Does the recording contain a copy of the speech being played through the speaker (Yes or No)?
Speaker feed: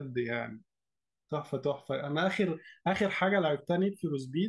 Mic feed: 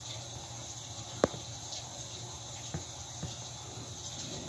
No